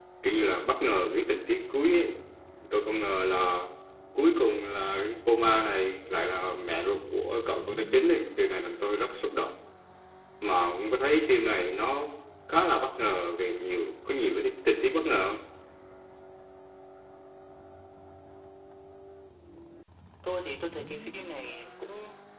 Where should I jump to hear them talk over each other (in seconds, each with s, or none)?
none